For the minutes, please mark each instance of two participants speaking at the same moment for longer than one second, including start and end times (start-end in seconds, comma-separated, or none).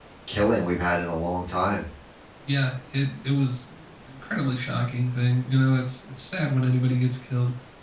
none